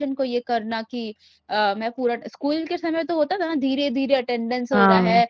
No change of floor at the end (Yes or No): Yes